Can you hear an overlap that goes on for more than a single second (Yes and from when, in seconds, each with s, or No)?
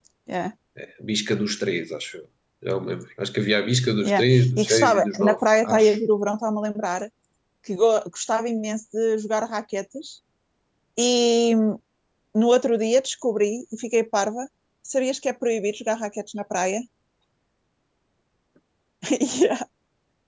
Yes, from 4.0 s